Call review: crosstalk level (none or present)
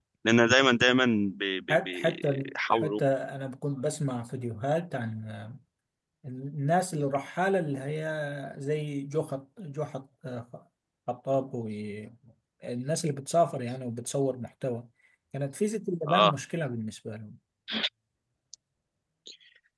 present